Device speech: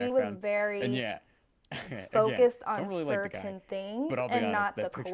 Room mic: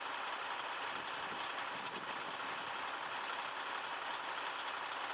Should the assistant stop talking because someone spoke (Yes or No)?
No